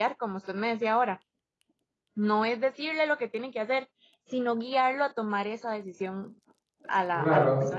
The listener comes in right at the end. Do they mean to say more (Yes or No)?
Yes